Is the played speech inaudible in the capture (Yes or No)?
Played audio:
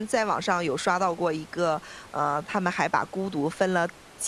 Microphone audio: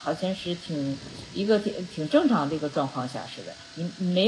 Yes